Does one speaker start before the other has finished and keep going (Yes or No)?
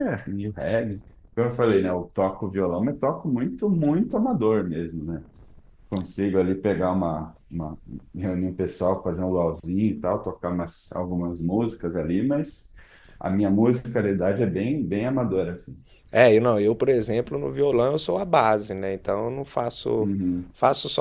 No